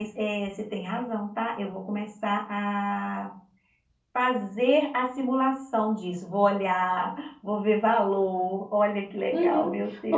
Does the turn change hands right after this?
Yes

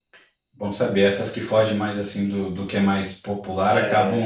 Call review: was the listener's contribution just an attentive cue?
Yes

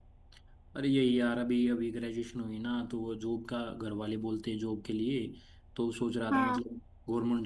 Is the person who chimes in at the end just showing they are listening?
Yes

